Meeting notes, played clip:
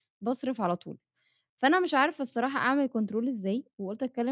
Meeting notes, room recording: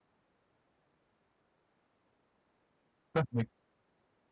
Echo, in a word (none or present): none